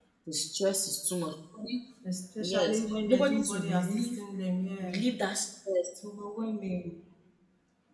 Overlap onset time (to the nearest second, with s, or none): 2 s